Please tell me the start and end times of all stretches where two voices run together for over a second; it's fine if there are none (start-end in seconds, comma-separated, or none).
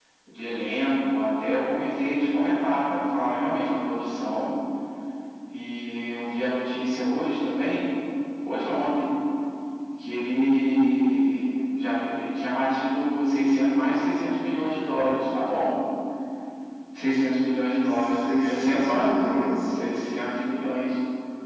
17.8-19.1